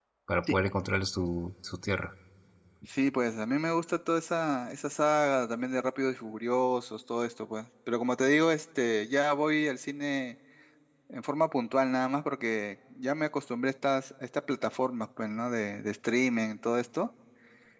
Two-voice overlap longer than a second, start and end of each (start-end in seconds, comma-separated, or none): none